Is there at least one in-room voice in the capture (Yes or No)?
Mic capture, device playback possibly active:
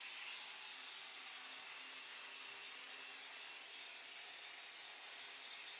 No